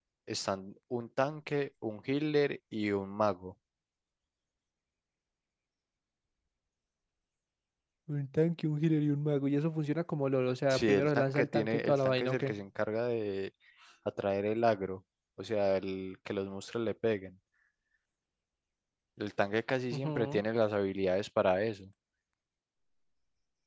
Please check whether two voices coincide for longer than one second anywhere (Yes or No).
Yes